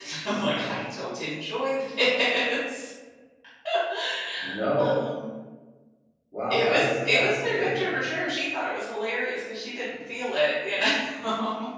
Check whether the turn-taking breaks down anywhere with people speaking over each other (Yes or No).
Yes